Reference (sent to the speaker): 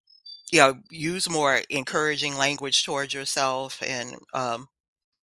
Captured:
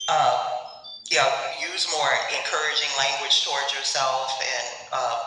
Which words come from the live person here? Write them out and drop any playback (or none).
none